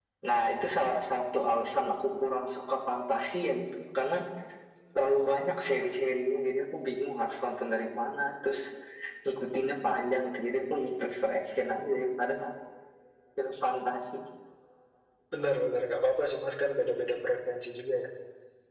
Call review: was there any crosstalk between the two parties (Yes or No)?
No